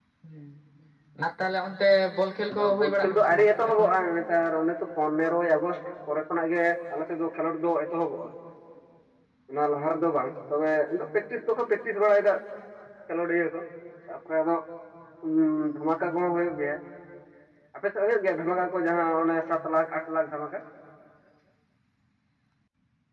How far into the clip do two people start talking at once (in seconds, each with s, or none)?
2.5 s